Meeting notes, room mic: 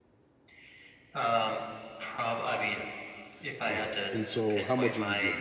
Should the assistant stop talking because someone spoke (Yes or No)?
Yes